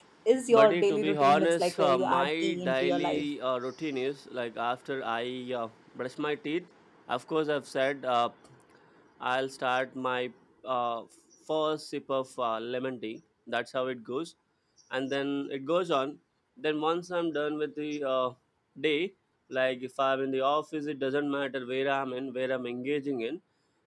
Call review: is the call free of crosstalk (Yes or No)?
No